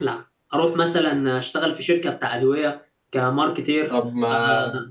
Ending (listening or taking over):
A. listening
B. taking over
B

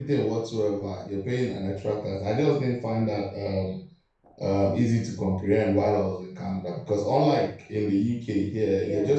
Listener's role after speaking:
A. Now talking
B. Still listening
B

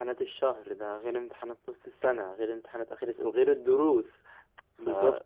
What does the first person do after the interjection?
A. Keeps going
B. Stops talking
A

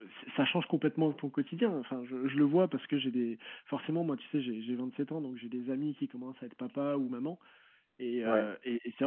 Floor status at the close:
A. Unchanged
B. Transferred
A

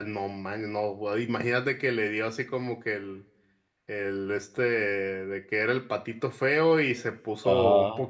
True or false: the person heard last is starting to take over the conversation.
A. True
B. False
B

